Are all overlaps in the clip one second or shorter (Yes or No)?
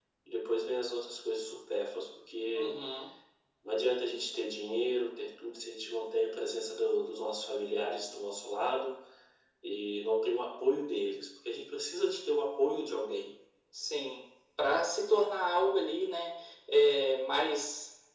Yes